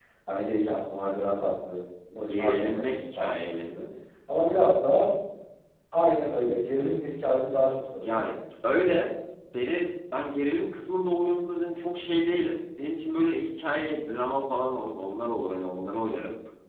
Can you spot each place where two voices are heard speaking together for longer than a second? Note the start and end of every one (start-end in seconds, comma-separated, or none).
2.3-3.7